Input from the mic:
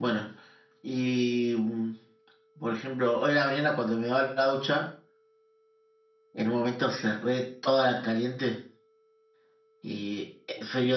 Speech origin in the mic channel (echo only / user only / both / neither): user only